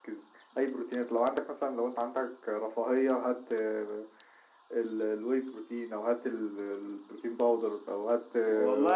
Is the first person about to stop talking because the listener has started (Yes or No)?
Yes